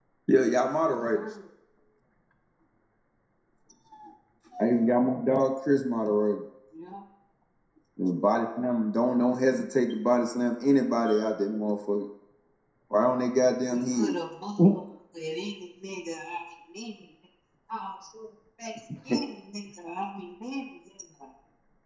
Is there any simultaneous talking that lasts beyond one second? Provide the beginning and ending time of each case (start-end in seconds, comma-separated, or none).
none